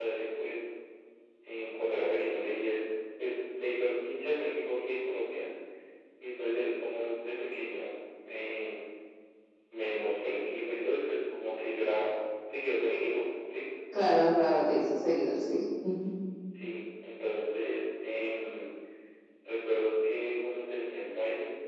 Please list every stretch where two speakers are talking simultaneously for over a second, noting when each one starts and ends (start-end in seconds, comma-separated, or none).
none